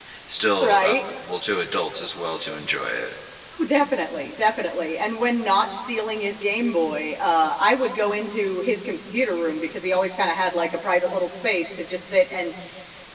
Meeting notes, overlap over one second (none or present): none